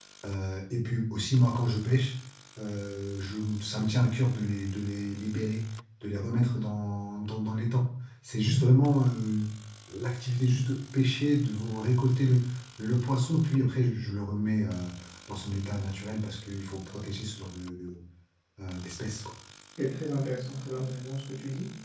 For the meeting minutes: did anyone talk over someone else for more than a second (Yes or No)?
No